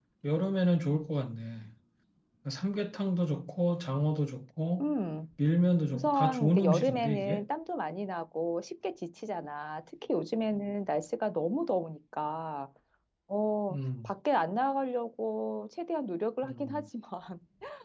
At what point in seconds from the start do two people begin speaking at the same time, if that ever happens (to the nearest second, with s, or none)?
6 s